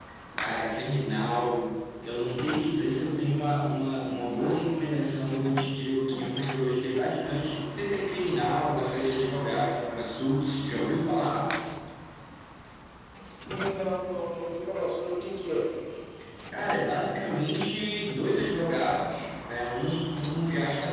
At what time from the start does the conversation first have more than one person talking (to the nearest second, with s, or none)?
none